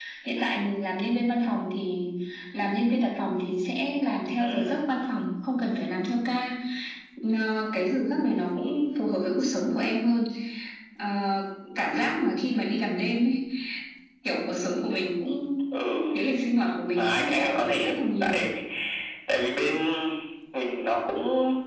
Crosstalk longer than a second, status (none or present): present